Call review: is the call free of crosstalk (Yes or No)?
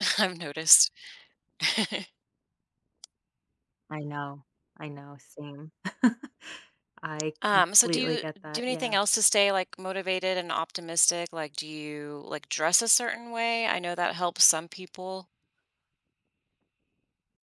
No